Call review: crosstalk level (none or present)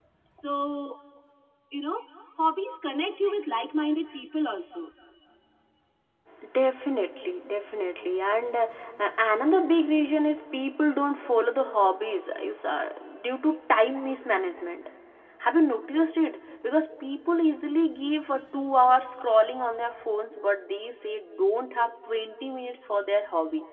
none